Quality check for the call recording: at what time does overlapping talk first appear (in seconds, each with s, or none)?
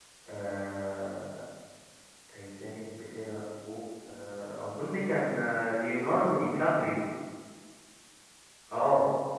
none